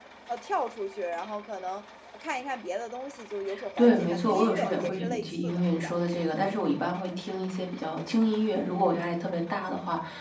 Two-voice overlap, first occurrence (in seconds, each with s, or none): 3.8 s